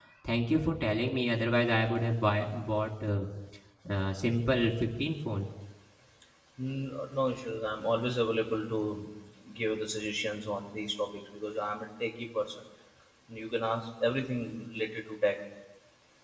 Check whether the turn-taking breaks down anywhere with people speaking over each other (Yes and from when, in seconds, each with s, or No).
No